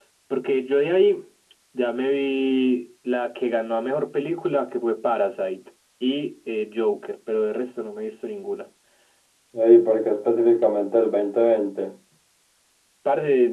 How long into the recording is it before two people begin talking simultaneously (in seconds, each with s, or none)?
none